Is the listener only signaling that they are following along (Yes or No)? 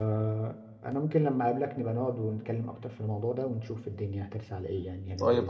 No